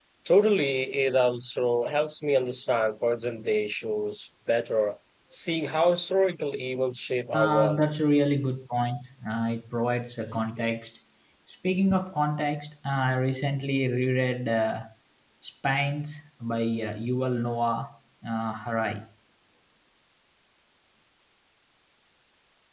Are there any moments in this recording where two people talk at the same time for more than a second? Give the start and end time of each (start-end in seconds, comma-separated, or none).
none